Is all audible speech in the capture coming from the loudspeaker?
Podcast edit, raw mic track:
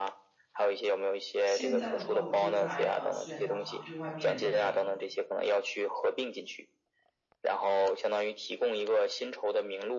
No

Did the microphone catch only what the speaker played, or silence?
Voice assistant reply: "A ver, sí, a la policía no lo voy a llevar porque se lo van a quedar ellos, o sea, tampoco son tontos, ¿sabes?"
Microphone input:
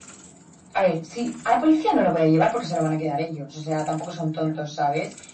Yes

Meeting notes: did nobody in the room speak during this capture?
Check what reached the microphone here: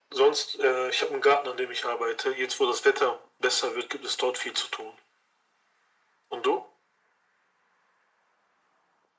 Yes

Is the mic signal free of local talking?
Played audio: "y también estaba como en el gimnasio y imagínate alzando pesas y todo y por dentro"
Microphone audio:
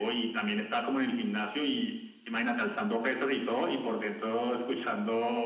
Yes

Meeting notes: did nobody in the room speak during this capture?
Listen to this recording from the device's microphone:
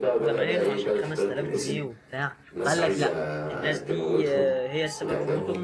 No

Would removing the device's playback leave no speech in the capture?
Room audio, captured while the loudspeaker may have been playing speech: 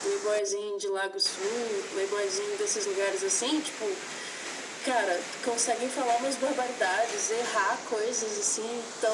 Yes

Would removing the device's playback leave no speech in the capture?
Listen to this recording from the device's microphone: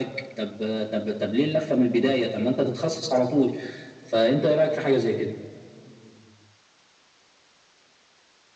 Yes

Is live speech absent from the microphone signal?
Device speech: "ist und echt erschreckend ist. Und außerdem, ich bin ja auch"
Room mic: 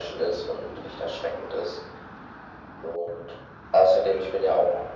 Yes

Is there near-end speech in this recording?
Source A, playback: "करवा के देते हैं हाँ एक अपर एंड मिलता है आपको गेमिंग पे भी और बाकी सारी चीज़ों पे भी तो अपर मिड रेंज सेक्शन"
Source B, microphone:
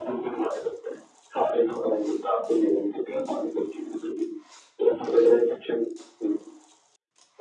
No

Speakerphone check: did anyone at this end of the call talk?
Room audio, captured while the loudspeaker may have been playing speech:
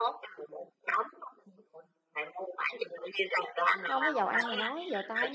Yes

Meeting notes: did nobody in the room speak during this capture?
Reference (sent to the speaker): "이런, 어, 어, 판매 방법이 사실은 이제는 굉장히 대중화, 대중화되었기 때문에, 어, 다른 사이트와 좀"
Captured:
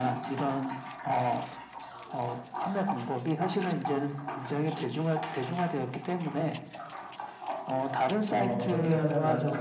No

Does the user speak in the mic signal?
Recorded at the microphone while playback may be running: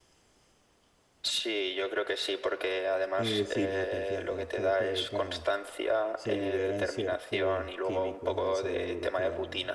Yes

